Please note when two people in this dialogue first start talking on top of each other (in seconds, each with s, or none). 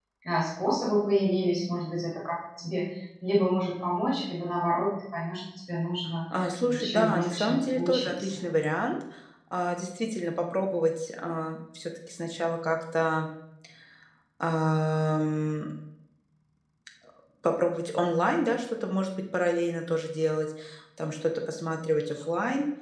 6.7 s